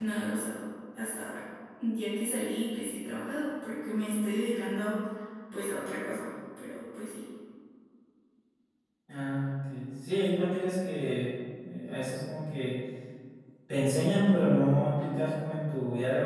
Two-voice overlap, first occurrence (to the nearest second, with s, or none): none